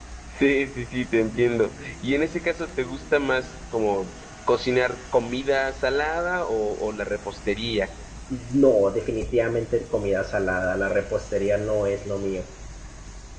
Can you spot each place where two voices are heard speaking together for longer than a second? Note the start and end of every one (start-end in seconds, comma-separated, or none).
none